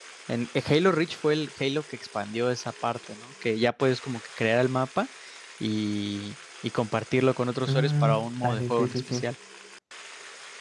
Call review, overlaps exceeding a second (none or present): present